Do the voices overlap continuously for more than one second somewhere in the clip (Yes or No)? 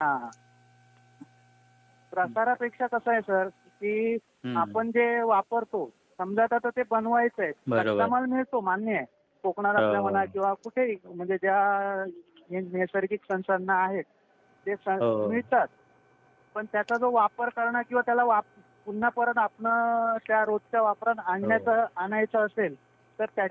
No